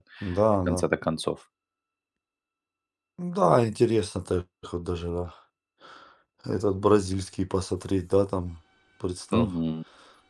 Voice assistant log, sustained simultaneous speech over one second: none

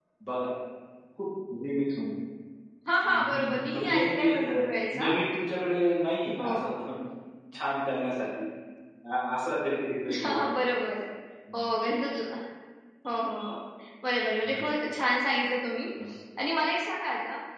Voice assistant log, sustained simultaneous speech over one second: present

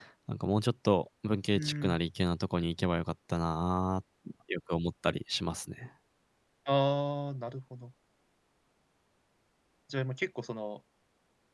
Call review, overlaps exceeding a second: none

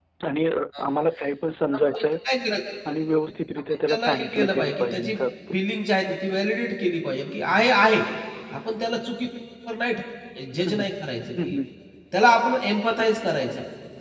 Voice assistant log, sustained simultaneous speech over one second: present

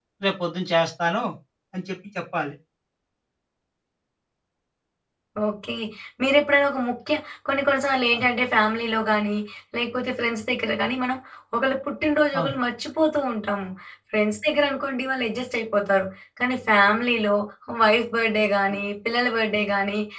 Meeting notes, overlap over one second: none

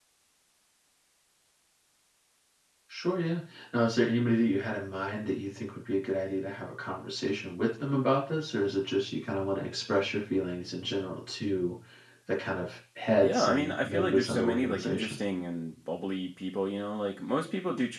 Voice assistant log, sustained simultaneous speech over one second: present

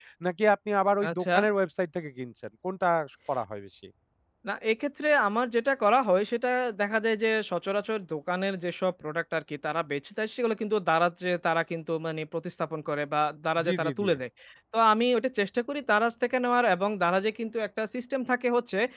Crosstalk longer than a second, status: none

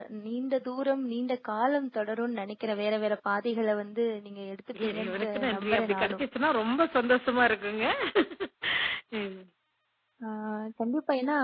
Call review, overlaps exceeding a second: present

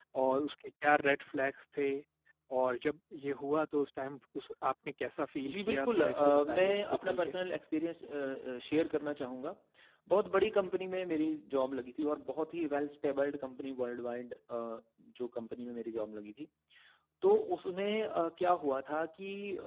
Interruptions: present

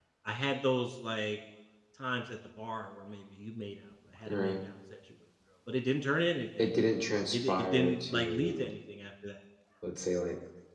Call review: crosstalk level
present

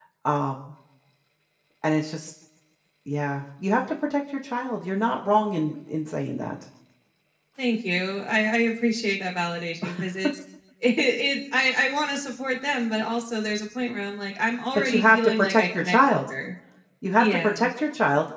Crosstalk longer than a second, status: present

